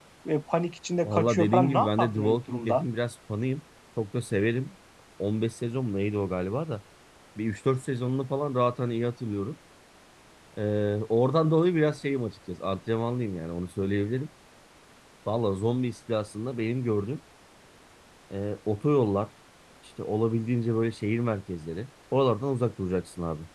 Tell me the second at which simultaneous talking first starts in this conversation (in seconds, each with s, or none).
1.0 s